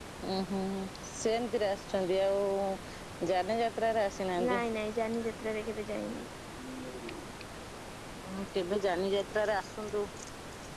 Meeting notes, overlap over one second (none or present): none